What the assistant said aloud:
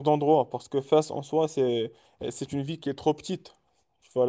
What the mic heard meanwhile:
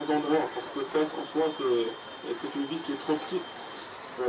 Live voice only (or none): none